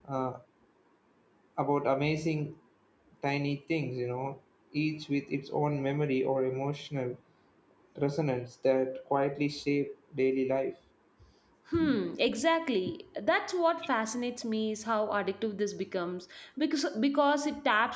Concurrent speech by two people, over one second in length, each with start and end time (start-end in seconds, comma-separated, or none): none